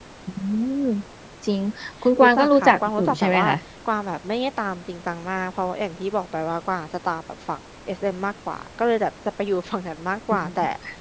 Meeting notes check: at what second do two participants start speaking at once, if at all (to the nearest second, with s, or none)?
2 s